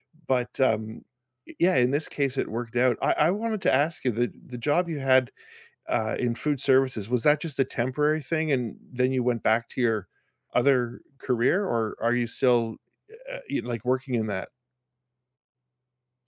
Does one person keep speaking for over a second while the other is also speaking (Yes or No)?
No